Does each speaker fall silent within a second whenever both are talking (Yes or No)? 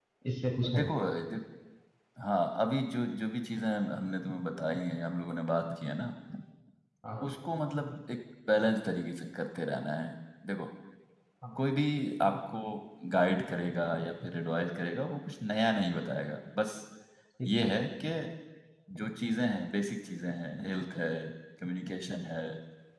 Yes